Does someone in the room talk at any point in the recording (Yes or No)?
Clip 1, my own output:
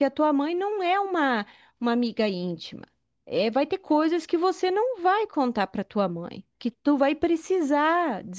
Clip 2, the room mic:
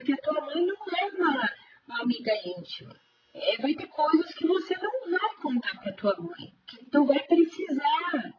No